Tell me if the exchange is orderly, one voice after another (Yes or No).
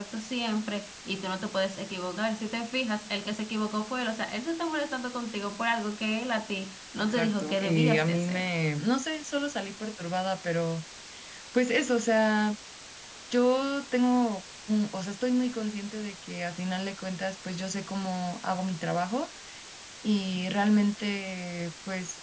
No